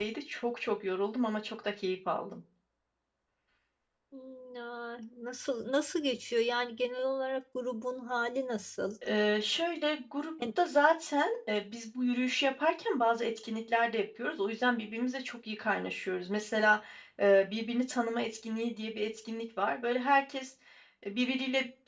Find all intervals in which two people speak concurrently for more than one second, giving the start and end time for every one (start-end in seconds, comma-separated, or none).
none